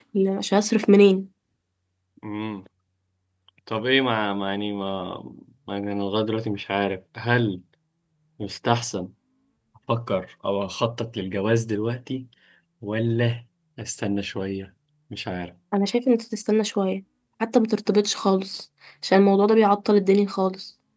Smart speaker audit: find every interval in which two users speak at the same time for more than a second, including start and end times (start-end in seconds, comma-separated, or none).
none